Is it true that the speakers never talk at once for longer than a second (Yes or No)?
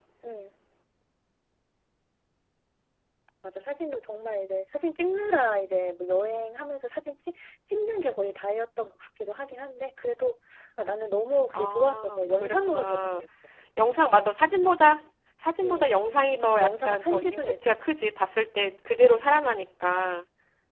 No